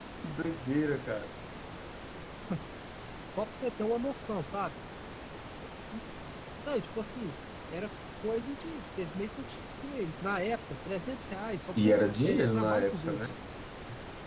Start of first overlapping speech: 12 s

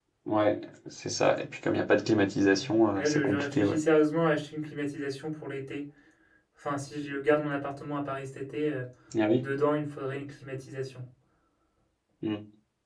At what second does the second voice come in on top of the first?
3 s

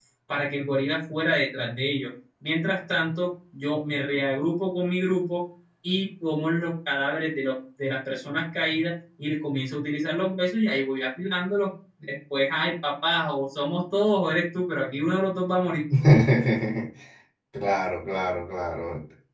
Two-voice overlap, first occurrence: none

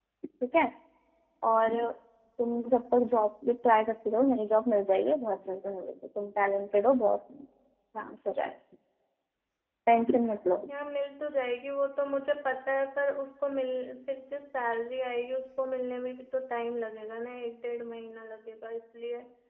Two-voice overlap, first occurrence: none

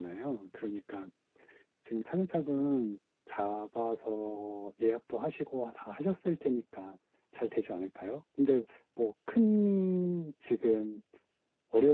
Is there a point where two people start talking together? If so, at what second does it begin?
none

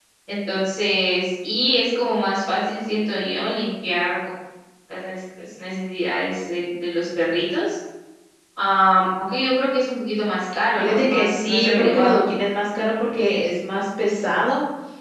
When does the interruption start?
11 s

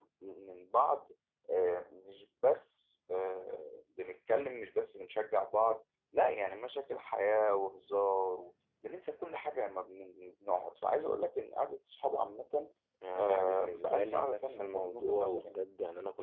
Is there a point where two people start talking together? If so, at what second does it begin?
13 s

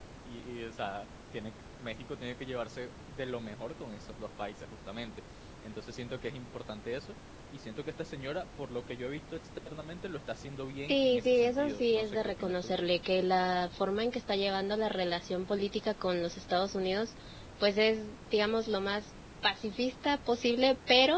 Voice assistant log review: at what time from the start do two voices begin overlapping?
11 s

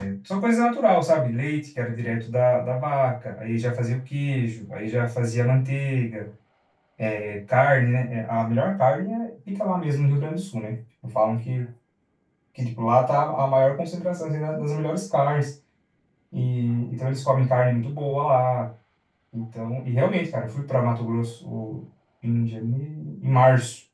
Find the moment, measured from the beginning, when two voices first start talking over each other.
none

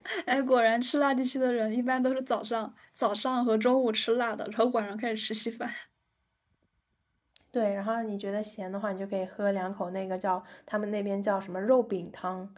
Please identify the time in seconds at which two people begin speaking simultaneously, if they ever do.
none

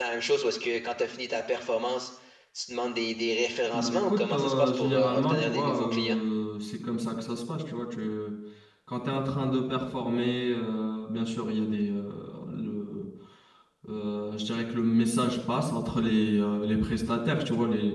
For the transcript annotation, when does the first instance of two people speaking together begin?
4 s

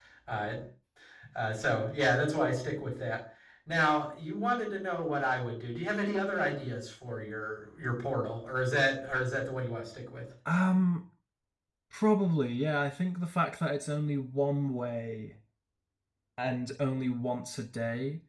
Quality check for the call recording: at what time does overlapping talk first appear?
none

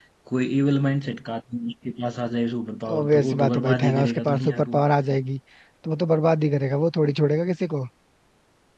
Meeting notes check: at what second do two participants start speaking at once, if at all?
3 s

